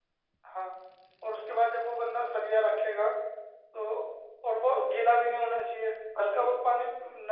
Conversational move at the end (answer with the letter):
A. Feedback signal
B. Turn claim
A